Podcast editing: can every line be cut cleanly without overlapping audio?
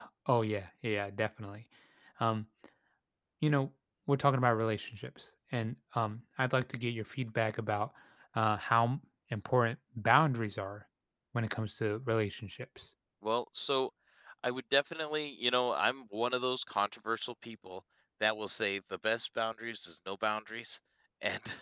Yes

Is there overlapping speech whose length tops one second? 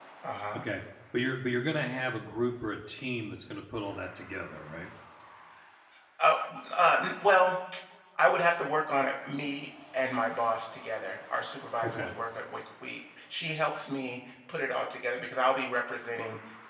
No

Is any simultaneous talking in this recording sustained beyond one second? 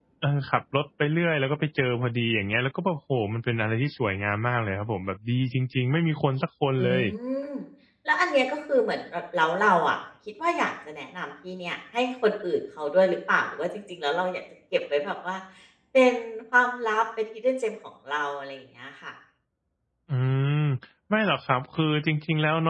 No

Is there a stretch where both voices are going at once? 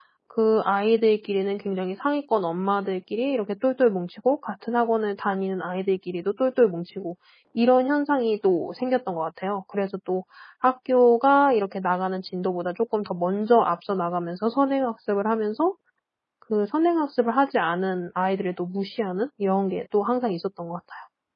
No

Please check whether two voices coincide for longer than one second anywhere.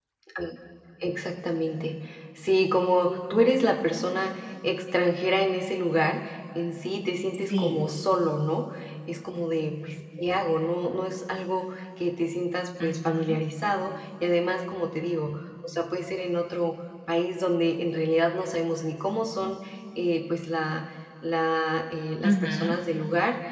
No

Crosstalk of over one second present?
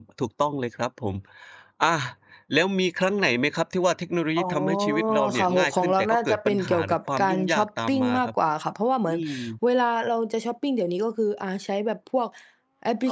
Yes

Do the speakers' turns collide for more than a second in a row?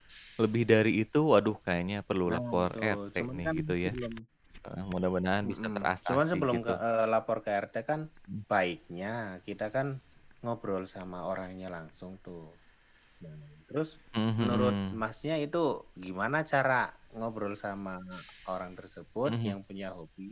Yes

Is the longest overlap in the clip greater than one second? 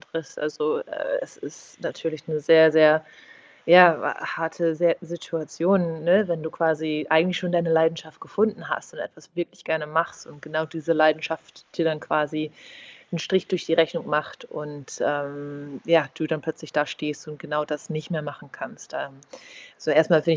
No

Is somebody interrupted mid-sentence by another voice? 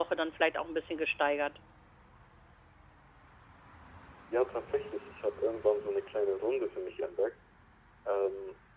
No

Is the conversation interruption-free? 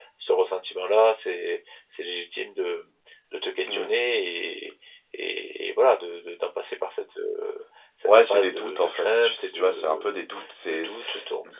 No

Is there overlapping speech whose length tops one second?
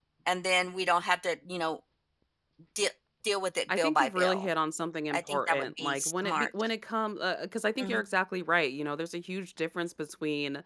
Yes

